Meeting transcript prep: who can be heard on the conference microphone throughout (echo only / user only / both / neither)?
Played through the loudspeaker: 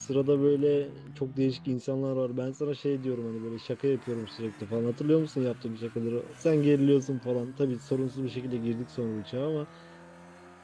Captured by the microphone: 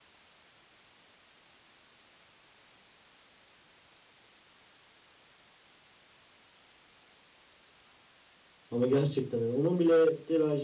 user only